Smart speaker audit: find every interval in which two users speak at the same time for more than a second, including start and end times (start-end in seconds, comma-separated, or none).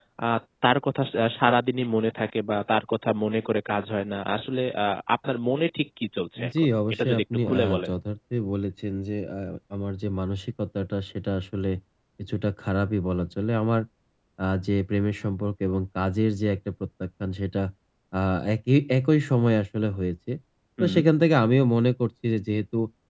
6.6-7.9